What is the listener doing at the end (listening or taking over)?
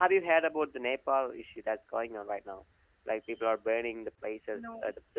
listening